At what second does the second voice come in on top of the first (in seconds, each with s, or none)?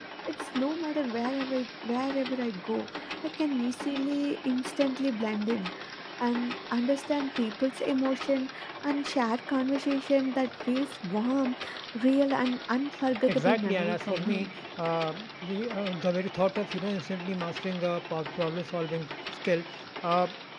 13.3 s